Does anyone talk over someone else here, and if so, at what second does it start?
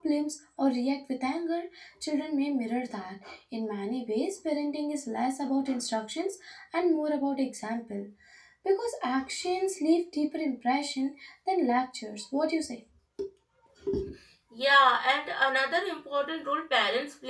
none

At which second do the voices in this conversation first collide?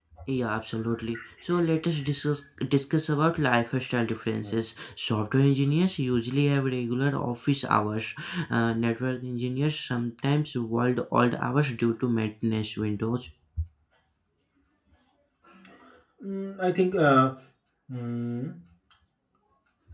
none

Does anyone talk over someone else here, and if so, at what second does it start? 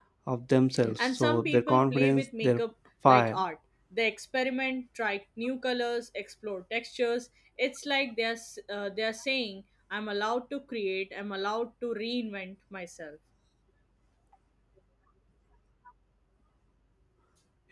1.0 s

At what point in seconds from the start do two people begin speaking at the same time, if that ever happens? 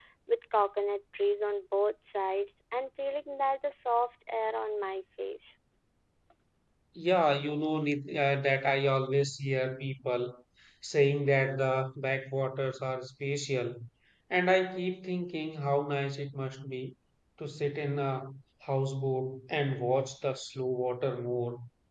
none

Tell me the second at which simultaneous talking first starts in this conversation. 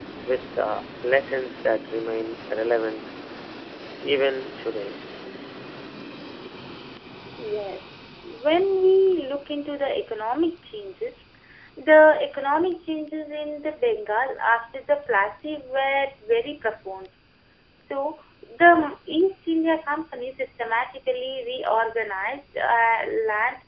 none

